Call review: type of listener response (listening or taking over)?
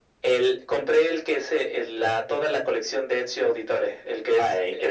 taking over